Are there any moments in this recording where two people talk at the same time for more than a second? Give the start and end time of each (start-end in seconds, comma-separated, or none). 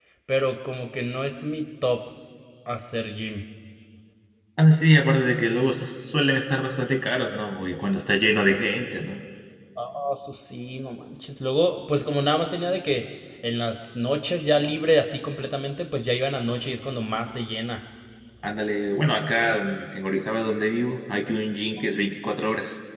none